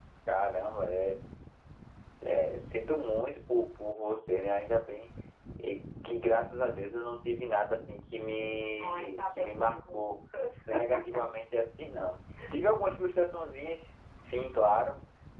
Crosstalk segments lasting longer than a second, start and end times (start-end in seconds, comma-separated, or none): 8.8-10.2